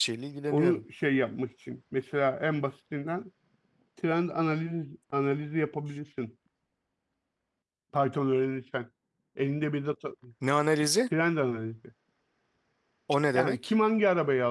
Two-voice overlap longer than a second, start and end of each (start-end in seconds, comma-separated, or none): none